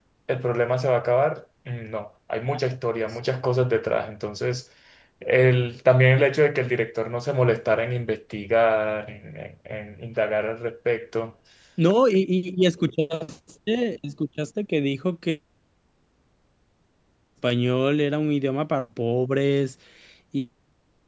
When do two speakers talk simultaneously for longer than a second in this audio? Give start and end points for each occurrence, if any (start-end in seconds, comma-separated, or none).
none